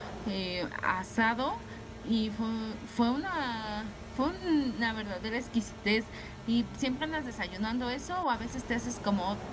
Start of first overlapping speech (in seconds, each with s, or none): none